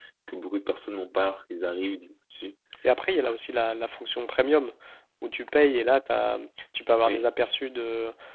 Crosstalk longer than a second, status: none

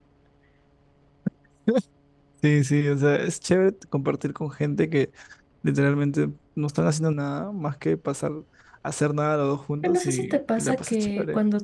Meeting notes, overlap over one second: present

